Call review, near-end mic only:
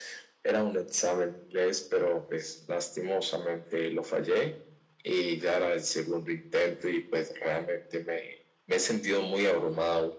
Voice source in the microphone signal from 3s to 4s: echo only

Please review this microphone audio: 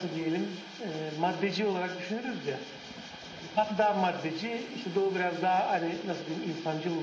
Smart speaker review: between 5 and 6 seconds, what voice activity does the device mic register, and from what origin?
echo only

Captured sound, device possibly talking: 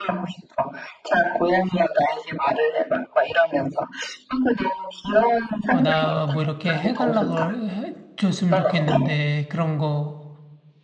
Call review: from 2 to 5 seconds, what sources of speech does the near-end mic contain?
echo only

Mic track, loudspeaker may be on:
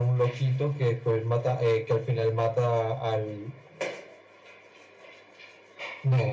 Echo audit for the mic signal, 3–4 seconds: echo only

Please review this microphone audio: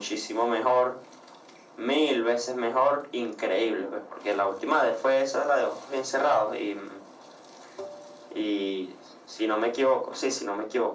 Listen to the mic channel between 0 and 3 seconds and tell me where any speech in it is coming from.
echo only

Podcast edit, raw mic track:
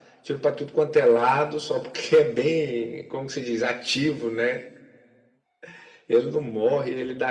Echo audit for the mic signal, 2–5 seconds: echo only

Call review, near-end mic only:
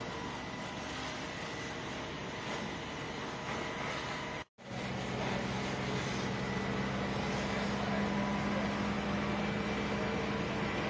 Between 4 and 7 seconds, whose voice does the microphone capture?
neither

